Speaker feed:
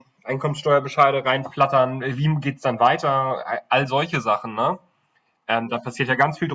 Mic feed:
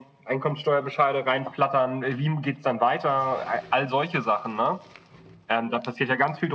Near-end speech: none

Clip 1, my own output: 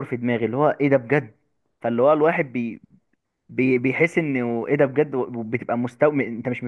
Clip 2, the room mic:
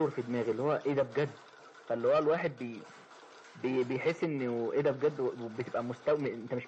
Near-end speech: none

